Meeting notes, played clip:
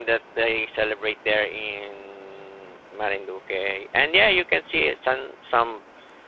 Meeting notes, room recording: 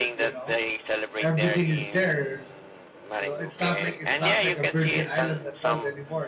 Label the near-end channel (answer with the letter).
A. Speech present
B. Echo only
A